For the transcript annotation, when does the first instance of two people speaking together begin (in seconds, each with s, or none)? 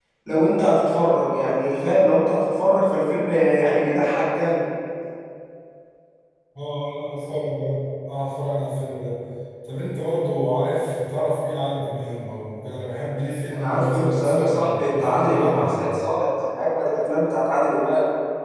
13.5 s